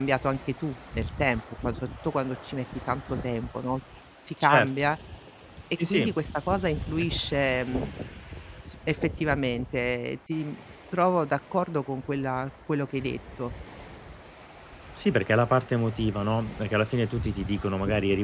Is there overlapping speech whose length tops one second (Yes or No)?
No